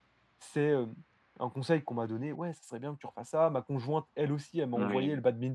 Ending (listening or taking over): listening